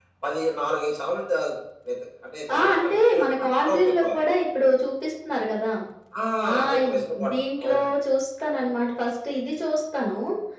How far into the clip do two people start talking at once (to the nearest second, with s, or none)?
3 s